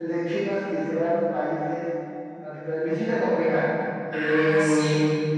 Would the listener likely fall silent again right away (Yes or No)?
Yes